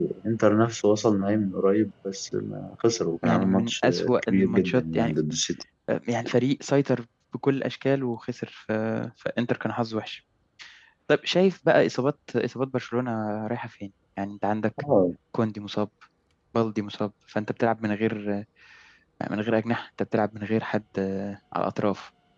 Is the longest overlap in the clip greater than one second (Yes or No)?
Yes